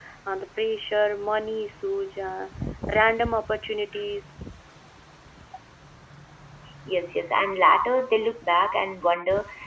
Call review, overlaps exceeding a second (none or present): none